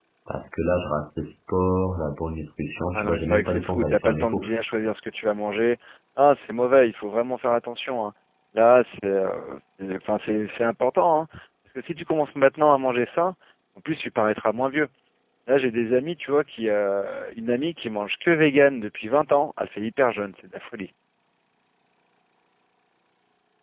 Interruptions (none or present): present